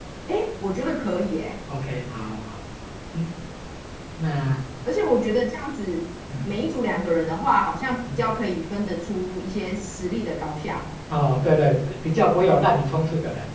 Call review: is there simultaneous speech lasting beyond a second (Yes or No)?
No